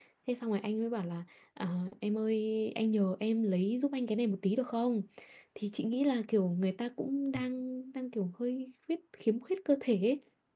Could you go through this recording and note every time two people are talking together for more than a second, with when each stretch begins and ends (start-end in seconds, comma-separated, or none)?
none